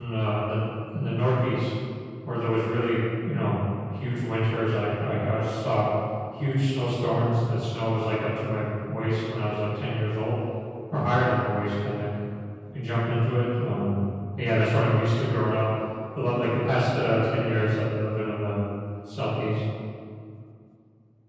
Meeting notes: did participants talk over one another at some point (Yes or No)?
No